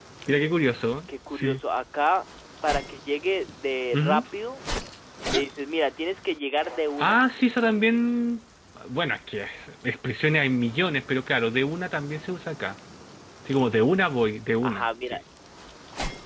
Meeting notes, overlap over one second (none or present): none